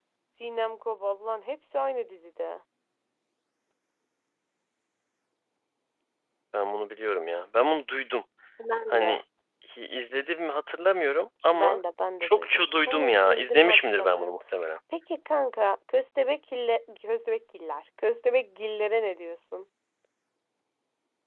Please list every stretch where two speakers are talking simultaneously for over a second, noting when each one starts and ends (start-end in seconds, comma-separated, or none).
12.2-14.3